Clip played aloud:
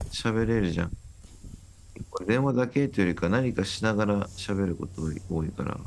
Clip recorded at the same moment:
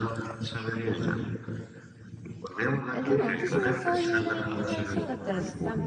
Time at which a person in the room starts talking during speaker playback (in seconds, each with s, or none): 2.9 s